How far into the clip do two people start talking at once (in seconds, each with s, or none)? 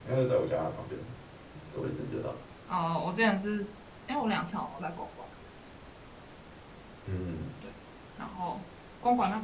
none